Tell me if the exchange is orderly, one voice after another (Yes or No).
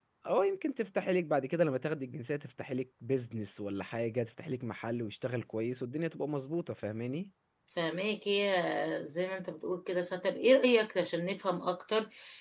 Yes